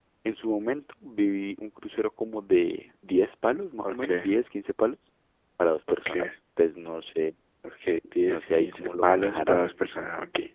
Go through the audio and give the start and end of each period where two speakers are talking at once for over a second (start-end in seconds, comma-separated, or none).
8.3-9.7